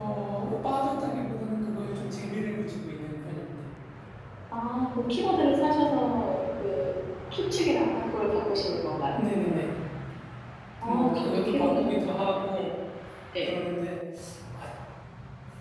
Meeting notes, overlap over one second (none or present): present